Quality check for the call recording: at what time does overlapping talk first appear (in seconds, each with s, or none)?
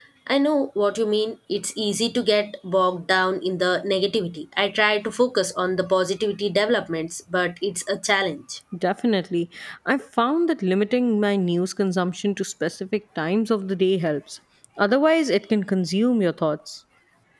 none